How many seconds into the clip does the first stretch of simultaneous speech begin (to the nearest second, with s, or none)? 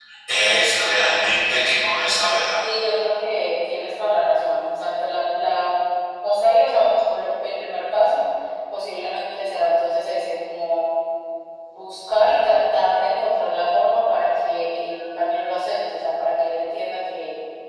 none